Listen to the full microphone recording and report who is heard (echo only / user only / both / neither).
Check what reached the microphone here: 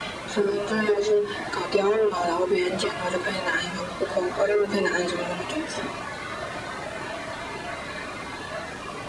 echo only